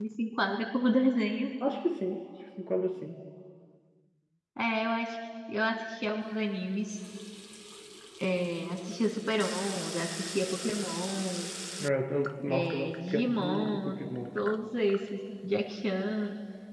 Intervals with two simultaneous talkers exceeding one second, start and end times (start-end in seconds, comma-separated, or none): 12.5-13.9